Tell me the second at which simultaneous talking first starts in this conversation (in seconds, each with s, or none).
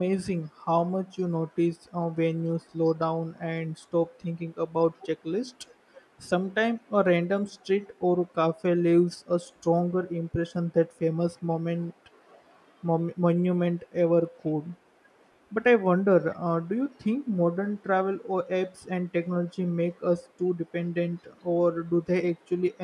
none